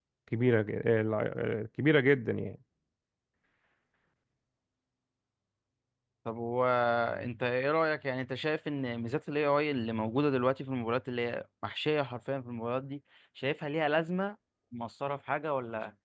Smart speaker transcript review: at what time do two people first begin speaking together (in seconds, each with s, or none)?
none